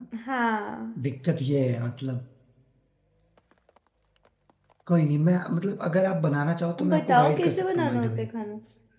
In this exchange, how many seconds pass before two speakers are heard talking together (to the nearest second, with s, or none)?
7 s